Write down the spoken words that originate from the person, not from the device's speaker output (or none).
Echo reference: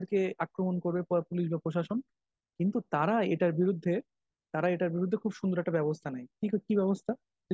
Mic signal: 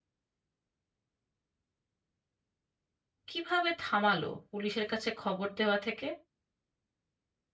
কিভাবে থামালো পুলিশের কাছে খবর দেওয়া থেকে